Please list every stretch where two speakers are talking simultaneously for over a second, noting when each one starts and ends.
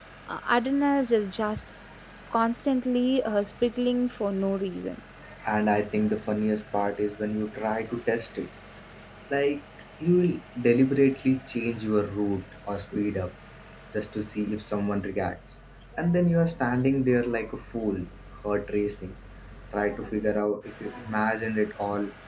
none

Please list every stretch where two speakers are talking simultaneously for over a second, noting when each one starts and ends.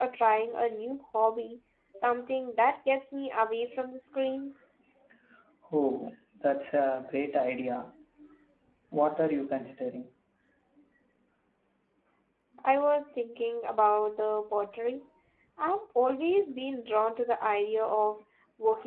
none

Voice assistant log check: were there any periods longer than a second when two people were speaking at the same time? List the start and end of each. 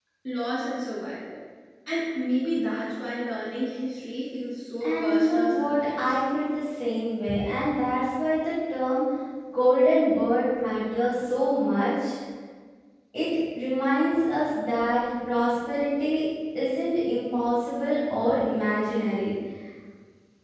4.8-6.2

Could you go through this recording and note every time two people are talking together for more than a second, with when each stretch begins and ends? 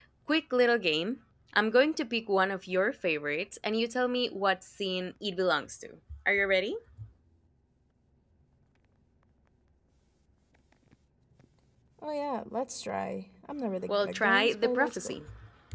13.9-15.1

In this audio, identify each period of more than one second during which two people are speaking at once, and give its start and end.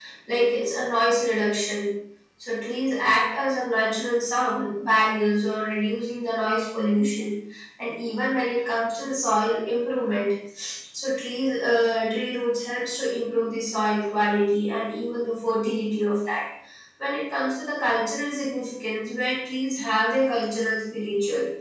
none

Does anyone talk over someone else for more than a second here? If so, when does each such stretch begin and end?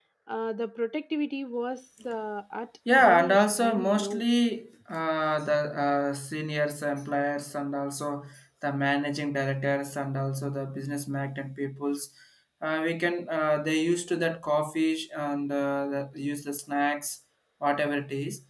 3.0-4.3

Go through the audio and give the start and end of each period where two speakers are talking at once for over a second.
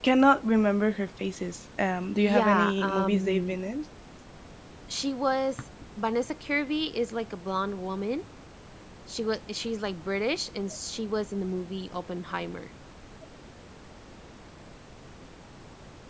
2.2-3.7

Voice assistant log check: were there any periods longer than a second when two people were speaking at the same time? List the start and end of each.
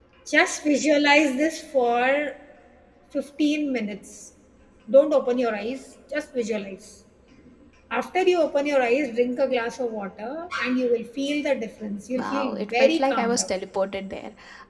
12.2-13.5

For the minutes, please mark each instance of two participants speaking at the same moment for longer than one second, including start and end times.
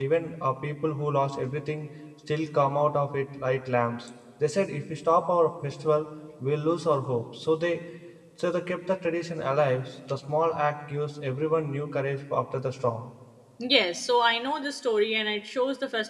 none

